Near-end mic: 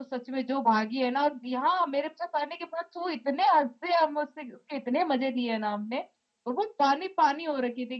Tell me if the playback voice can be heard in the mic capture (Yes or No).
No